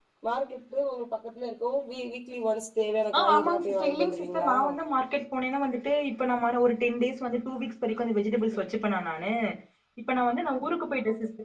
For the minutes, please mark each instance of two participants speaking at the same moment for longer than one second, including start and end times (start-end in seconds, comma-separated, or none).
3.2-4.5